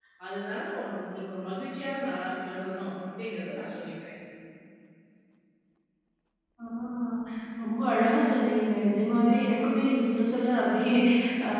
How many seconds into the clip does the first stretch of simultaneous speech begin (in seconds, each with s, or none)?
none